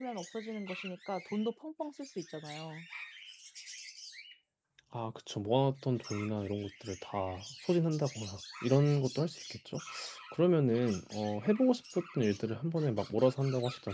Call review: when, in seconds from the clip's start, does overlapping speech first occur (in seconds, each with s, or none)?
none